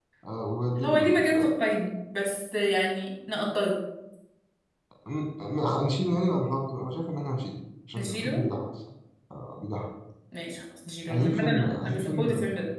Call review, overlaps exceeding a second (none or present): present